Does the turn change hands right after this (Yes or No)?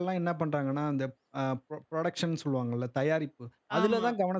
No